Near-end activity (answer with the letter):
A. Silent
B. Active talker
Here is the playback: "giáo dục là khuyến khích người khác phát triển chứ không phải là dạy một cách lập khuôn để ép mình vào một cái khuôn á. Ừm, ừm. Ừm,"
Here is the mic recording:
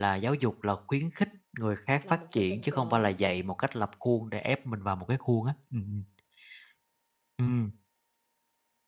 B